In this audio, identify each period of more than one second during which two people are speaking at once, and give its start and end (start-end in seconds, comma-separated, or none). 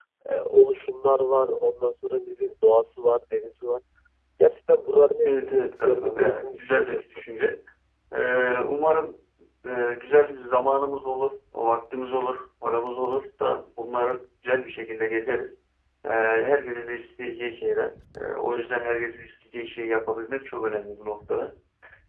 5.2-7.0